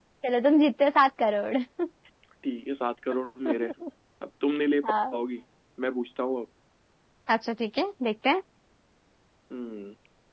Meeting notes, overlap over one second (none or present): none